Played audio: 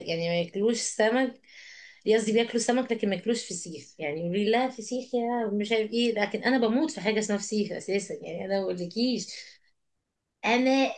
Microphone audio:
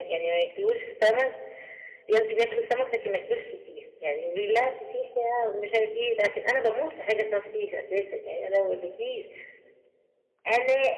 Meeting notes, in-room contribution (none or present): none